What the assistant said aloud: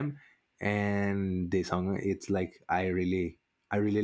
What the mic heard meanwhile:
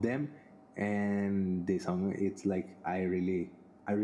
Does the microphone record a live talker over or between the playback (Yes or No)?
No